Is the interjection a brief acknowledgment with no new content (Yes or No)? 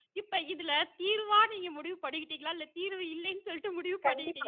No